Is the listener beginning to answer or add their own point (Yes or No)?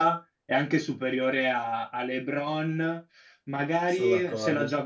No